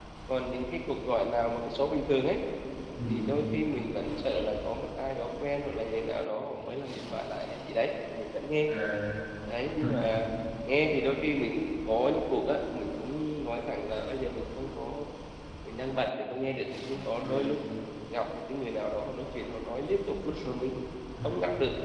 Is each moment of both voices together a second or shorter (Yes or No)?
Yes